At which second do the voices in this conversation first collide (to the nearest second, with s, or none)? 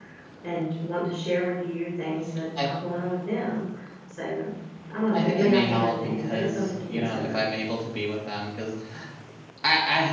5 s